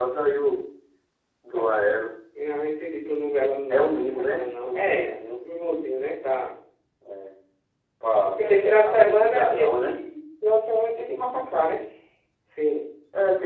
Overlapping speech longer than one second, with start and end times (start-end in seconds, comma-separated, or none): 3.7-5.2, 8.4-9.9